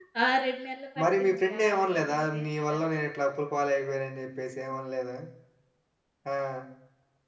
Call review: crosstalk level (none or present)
present